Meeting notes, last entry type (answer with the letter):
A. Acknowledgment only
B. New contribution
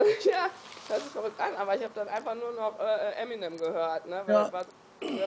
A